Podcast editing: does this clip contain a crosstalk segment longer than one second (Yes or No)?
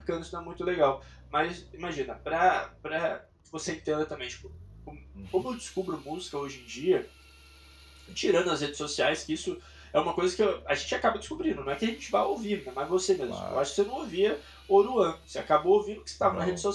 No